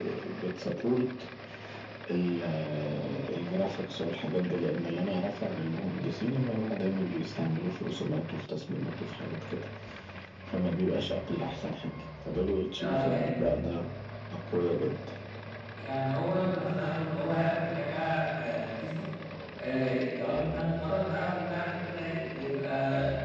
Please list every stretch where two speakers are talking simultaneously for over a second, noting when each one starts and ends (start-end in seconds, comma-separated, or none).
none